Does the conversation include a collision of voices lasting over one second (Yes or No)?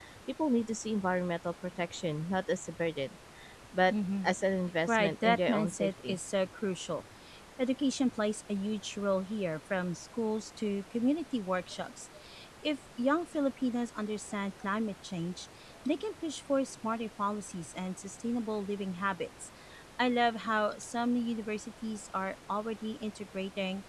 Yes